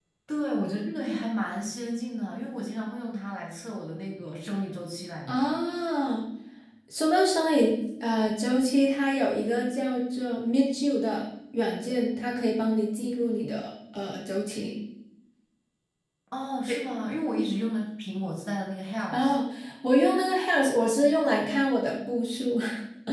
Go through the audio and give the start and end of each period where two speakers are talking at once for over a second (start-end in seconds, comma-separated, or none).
none